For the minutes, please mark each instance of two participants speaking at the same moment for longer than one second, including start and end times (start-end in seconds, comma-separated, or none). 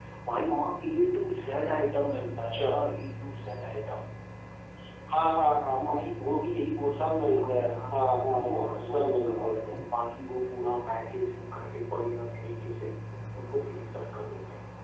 7.0-9.6